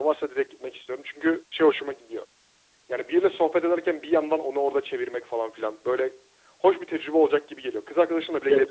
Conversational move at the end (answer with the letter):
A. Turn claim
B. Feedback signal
A